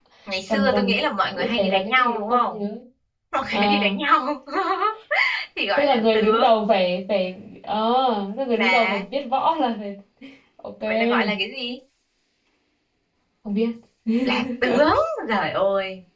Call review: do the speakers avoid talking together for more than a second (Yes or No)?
No